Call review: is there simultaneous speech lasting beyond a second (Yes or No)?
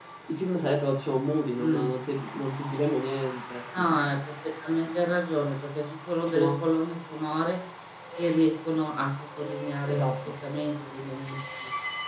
No